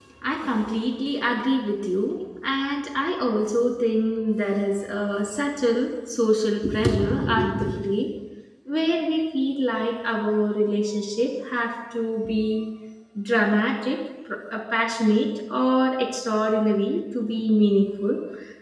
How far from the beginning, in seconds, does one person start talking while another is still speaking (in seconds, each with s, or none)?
none